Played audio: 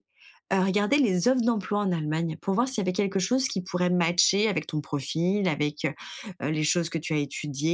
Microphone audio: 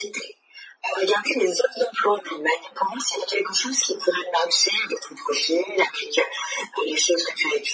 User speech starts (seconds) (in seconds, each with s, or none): none